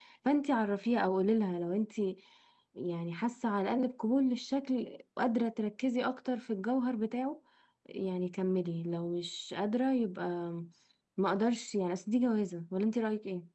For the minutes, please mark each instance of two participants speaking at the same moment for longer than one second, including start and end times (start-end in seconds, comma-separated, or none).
none